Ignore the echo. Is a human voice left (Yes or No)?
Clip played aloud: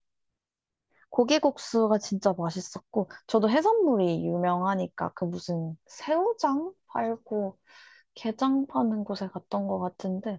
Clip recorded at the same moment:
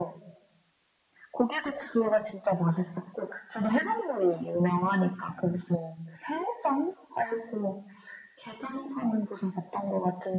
No